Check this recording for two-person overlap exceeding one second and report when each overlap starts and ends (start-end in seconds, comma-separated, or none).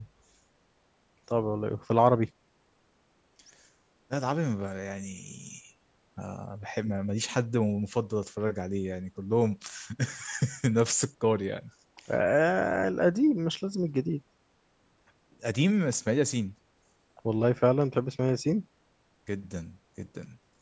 none